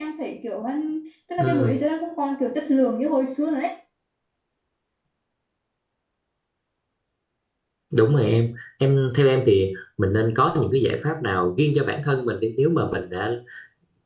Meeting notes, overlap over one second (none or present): none